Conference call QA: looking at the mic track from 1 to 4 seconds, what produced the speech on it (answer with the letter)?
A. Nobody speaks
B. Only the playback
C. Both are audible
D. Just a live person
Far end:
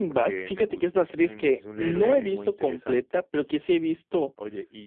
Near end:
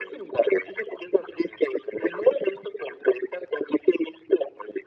B